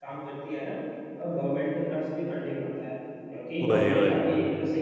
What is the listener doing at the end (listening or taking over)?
listening